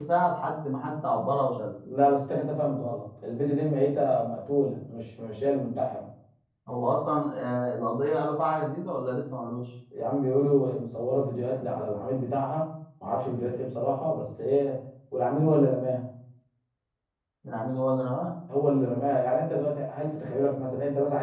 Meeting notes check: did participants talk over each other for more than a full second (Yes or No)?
No